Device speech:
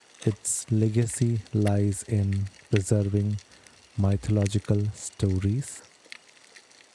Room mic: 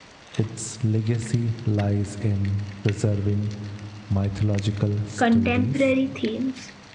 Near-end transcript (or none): contemporary themes,